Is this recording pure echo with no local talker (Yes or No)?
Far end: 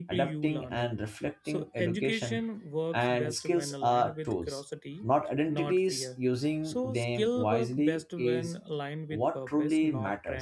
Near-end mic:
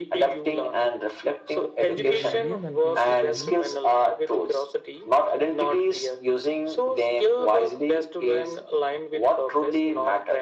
No